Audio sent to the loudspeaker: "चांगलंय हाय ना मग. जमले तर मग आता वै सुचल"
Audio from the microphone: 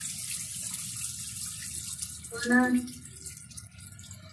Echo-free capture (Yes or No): Yes